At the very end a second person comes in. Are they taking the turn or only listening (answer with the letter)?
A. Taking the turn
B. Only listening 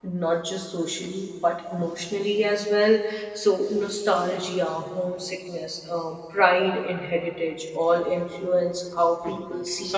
A